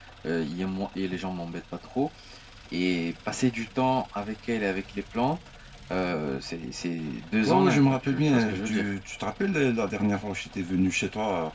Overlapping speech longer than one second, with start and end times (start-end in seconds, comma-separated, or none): 7.4-8.9